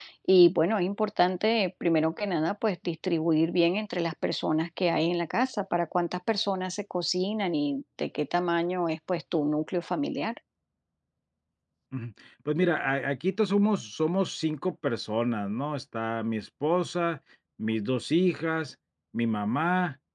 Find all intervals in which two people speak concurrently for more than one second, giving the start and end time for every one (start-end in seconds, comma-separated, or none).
none